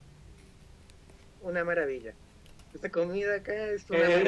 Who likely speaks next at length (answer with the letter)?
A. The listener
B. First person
A